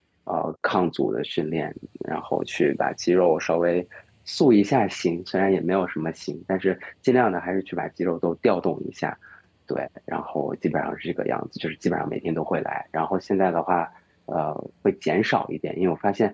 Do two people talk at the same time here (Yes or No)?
No